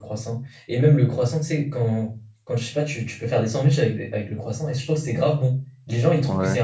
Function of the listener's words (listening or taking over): listening